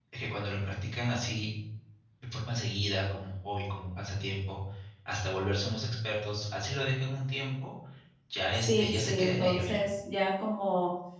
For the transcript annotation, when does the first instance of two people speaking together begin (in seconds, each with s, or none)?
8.5 s